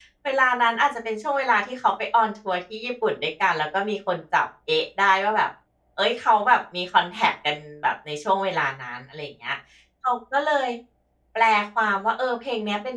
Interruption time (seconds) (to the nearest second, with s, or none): none